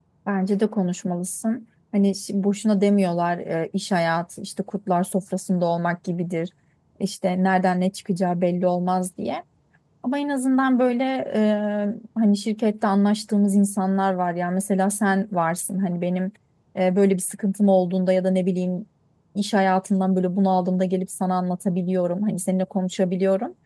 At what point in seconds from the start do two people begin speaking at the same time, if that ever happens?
none

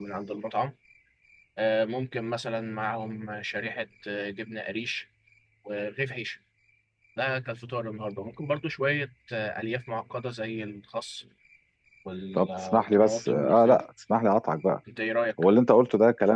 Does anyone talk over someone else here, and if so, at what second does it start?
12 s

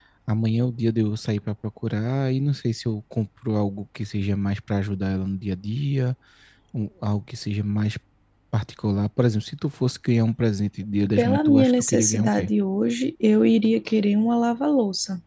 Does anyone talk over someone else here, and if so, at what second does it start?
11 s

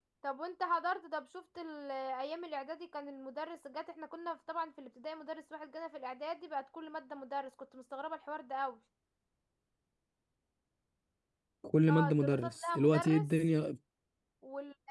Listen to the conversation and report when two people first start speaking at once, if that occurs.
12 s

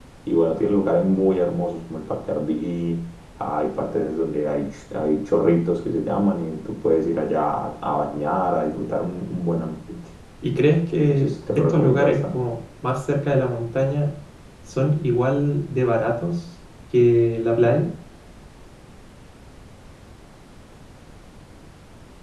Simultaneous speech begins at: 11 s

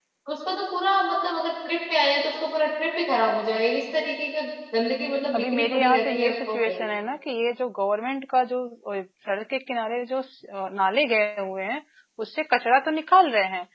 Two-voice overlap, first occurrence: 5 s

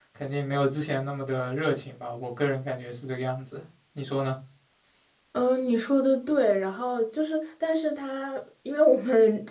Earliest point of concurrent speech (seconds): none

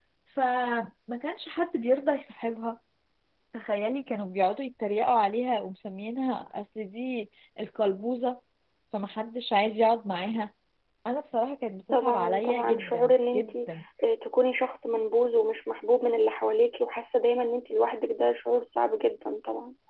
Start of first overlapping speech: 12 s

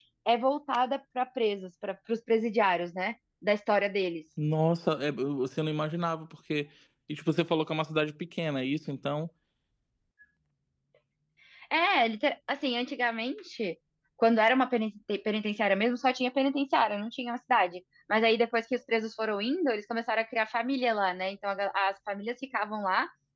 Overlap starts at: none

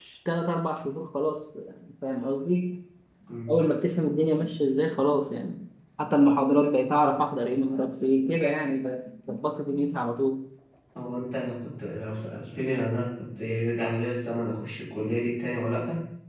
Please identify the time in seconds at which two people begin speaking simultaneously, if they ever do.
none

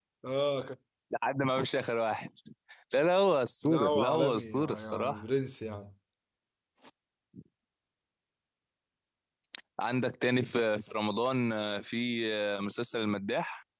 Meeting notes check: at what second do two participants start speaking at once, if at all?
4 s

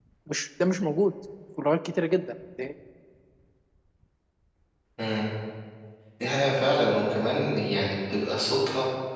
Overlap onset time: none

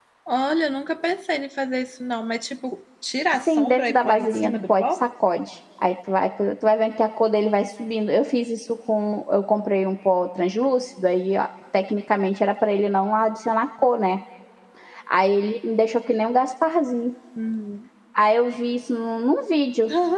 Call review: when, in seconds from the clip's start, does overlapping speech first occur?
3 s

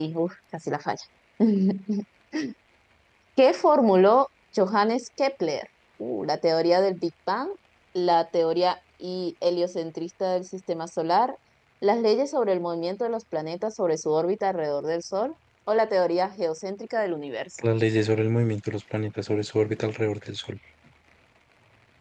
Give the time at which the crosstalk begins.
none

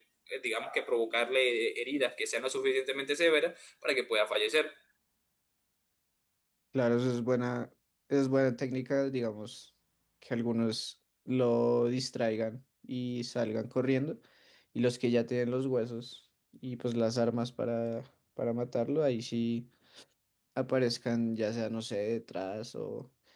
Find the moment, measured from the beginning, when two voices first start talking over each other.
none

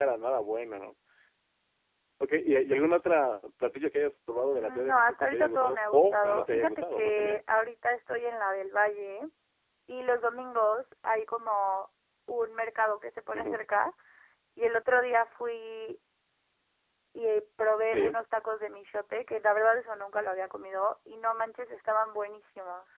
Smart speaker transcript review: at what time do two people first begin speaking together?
5 s

